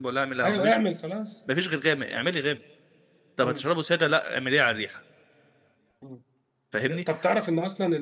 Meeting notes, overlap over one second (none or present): none